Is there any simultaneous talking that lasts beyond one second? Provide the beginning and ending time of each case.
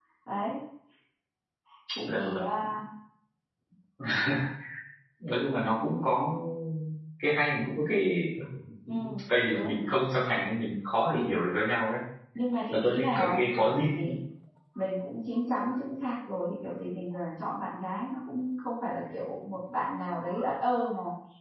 12.7-14.1

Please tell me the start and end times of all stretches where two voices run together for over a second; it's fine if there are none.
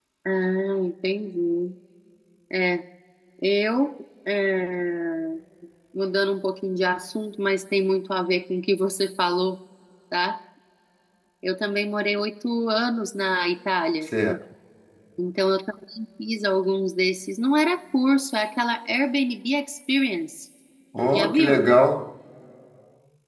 none

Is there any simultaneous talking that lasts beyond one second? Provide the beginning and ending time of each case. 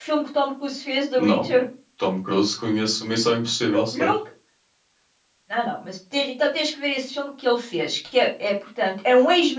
none

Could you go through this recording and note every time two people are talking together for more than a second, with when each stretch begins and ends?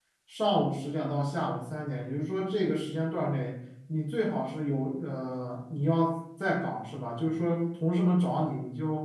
none

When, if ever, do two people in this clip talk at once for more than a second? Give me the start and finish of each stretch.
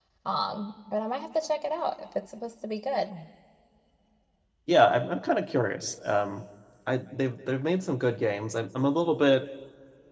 none

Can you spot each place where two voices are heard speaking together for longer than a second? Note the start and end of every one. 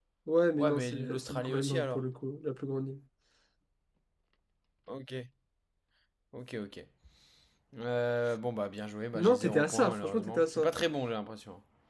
0.6-2.0, 9.2-10.7

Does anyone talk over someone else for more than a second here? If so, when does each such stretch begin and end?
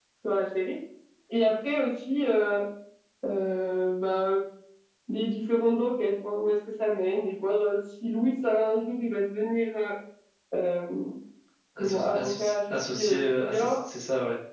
11.8-13.8

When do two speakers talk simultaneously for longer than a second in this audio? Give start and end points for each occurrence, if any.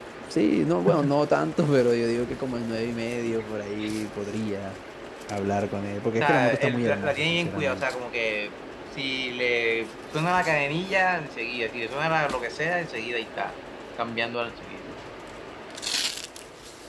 6.2-7.8

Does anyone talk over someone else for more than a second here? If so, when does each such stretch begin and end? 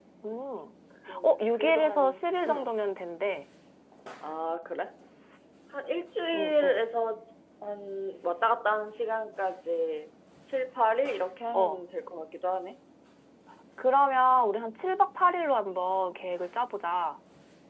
1.2-2.7

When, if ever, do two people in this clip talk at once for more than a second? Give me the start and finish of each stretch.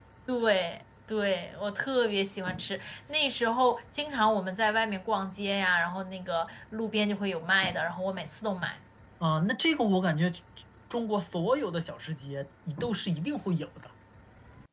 none

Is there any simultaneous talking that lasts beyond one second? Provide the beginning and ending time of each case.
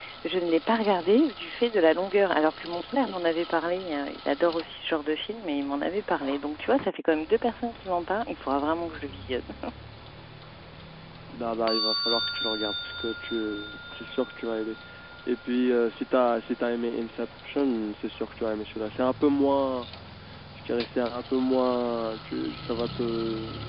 none

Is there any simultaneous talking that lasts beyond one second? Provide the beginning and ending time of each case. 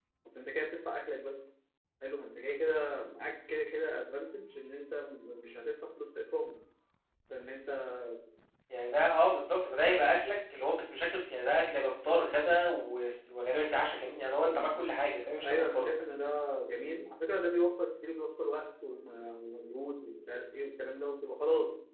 none

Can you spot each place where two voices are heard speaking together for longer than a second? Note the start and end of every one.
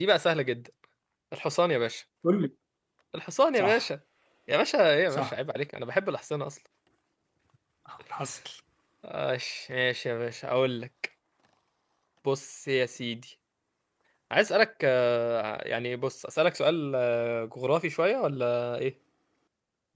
none

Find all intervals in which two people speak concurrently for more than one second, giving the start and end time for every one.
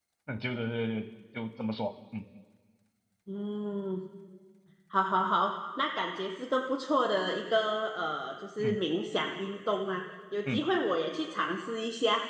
none

